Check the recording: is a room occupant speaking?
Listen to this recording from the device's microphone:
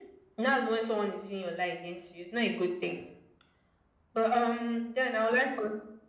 No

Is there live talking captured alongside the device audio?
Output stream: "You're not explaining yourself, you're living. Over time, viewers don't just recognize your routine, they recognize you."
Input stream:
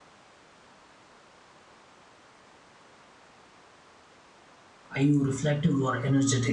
Yes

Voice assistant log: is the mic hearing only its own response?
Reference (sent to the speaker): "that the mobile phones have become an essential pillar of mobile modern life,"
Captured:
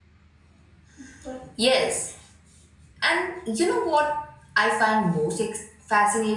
No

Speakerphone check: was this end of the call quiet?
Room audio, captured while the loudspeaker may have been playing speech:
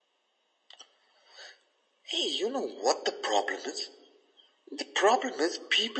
Yes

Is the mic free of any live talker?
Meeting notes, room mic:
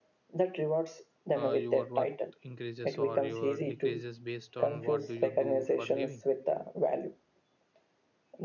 No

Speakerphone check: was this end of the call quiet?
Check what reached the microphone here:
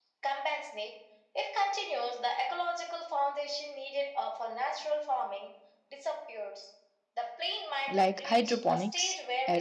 No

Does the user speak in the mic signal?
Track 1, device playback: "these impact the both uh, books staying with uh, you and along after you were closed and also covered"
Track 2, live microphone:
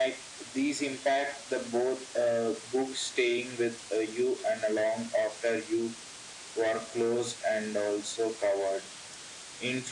No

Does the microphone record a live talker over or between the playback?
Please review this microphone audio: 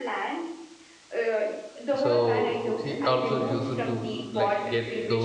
Yes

